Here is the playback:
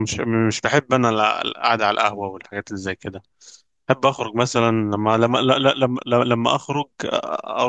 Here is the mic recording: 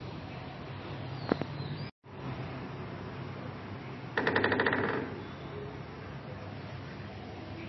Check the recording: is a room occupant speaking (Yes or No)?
No